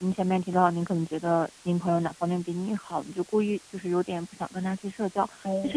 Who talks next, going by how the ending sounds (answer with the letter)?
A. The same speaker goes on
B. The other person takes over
A